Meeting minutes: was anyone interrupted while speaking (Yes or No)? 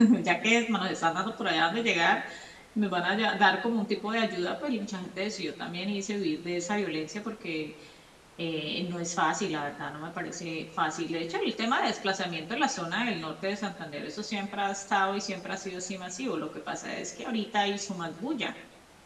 No